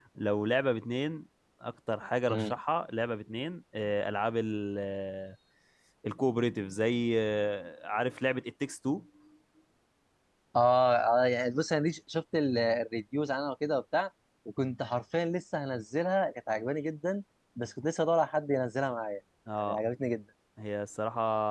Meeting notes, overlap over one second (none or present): none